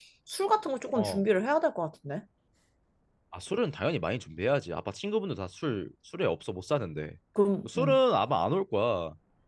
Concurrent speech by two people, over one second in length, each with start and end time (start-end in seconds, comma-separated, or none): none